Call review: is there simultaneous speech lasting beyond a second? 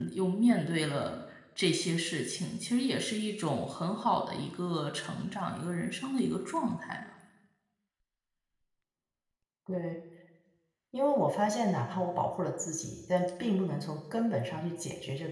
No

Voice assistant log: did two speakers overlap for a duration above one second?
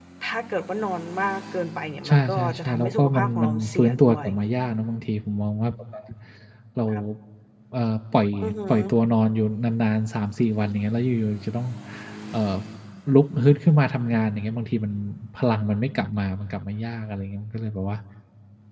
Yes, from 2.0 s

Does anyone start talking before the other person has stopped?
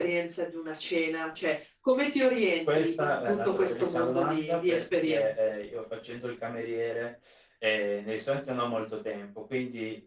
Yes, from 2.7 s

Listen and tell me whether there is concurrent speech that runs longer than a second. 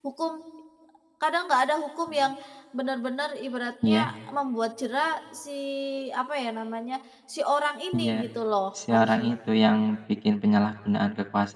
No

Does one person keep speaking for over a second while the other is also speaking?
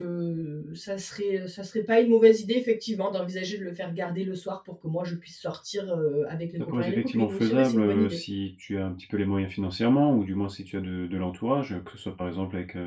Yes, from 6.6 s

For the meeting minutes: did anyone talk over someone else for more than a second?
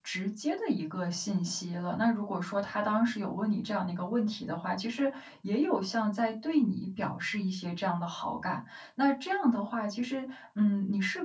No

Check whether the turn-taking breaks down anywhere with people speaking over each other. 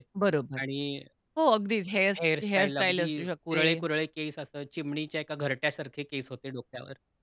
Yes, from 2.4 s

